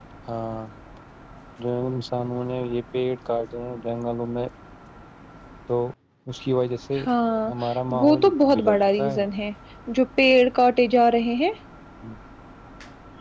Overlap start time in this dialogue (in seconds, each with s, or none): 8.0 s